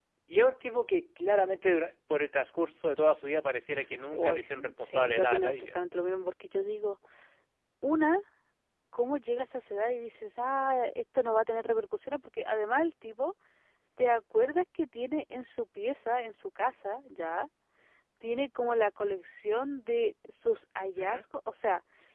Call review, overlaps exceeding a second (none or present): present